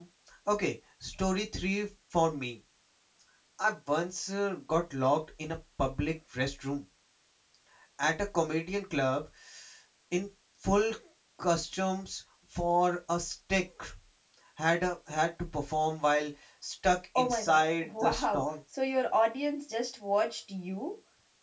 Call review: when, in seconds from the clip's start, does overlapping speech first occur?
17.2 s

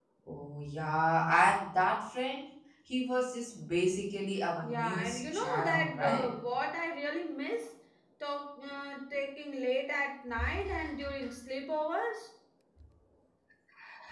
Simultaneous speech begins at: 4.6 s

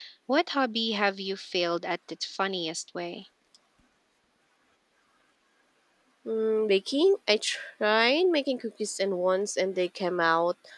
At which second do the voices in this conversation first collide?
none

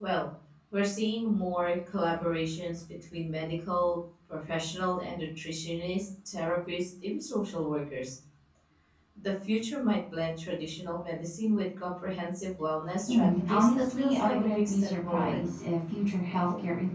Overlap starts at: 13.1 s

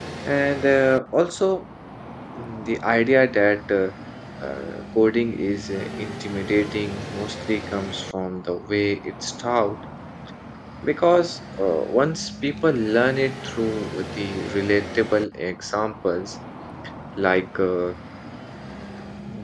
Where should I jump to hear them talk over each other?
none

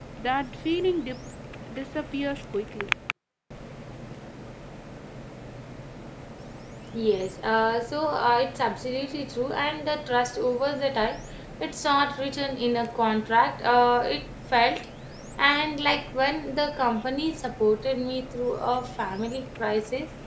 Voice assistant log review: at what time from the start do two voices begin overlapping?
none

